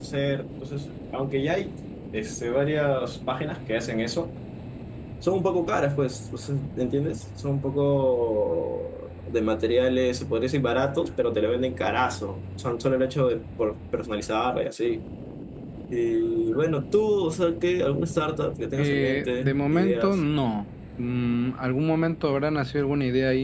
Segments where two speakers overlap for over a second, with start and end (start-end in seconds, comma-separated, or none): 18.8-20.2